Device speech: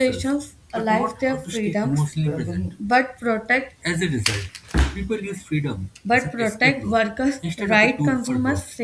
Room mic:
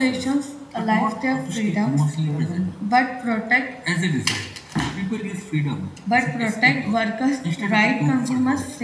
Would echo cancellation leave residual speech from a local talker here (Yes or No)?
No